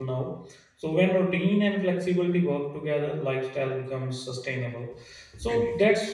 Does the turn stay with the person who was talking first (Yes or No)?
Yes